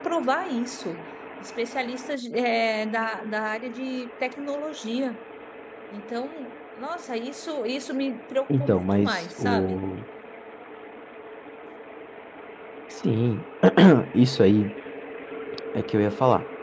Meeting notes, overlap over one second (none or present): present